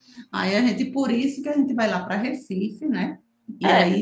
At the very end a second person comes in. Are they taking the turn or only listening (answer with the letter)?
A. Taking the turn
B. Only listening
A